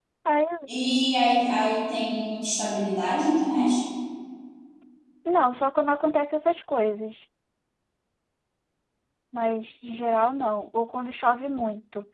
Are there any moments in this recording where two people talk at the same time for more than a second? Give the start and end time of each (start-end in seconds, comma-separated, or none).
none